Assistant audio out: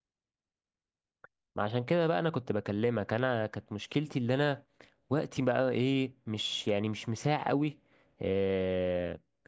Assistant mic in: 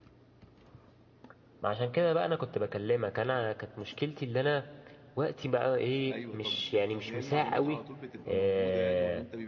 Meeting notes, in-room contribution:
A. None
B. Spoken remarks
B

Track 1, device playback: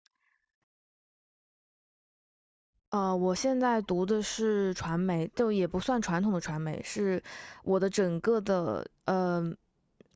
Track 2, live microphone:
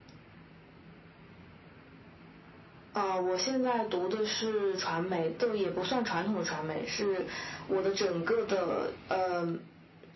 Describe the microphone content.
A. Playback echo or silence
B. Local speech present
A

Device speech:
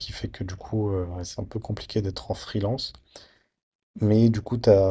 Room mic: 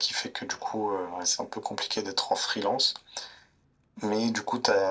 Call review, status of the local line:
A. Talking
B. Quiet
B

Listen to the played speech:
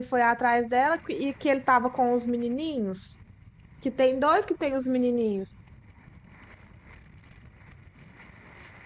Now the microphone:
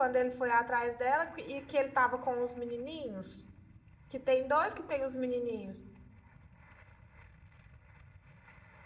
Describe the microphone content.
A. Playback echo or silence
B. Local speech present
A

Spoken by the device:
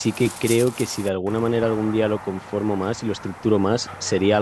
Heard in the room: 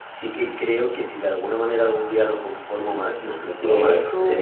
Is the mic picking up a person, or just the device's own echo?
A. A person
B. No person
A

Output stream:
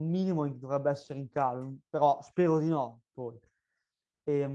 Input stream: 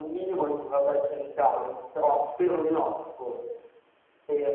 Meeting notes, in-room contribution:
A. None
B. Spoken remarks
A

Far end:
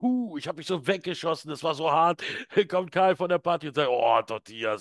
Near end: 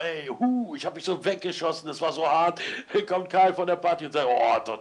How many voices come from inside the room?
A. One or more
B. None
B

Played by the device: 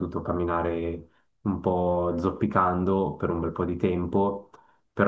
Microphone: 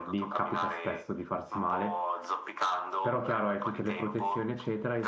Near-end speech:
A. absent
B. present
B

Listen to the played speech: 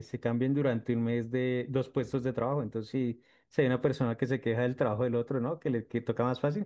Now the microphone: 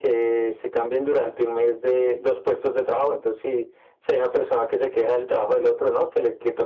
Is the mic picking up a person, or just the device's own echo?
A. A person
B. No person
B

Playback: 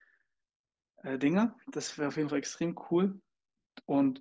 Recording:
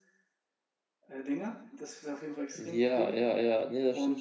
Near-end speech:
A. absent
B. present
B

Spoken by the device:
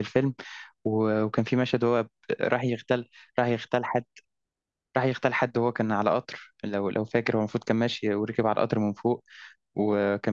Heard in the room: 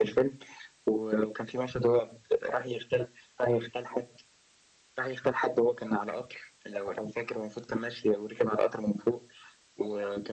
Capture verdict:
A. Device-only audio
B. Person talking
A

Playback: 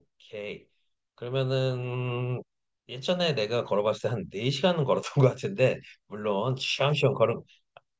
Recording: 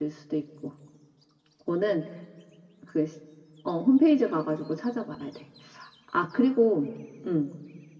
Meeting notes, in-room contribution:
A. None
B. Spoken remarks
B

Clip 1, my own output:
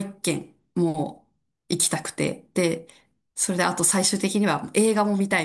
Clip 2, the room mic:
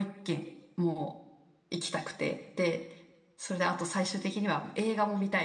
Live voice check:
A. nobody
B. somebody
A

